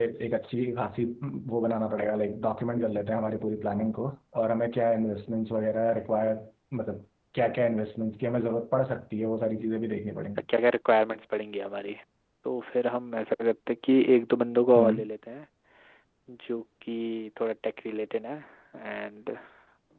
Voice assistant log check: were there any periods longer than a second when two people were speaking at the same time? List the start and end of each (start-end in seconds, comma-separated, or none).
none